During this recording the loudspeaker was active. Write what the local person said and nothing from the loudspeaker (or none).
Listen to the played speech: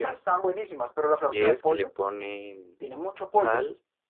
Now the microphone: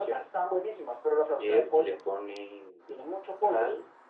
none